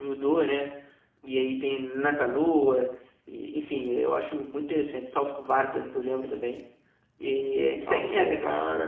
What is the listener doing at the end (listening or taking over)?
taking over